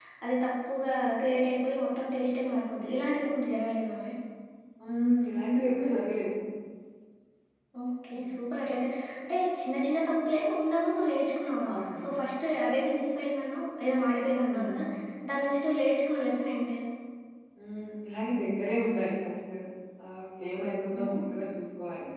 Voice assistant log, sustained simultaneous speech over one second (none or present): none